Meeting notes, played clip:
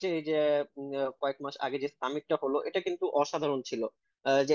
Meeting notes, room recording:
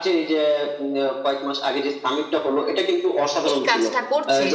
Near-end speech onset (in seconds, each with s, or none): 3.5 s